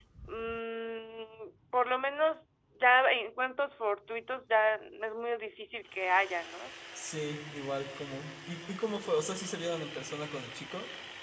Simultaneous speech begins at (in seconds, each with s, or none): none